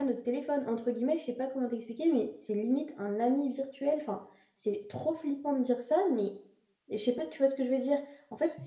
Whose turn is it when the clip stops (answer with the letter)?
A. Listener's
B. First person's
B